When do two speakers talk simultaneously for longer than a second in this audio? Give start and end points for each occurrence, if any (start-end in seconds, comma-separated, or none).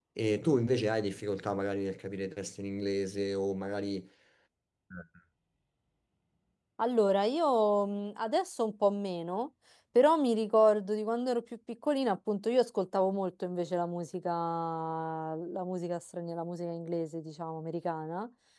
none